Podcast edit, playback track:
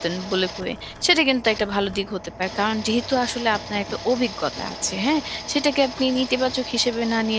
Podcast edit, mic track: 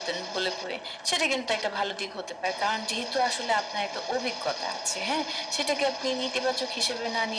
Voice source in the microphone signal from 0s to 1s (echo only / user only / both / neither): echo only